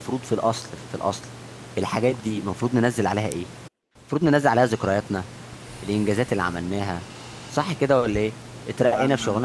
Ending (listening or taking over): listening